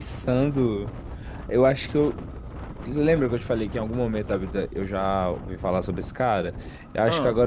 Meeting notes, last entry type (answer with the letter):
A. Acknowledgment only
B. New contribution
A